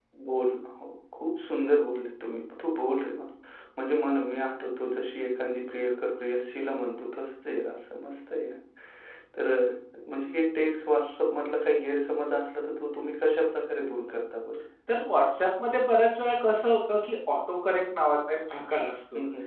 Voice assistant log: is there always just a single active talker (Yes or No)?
Yes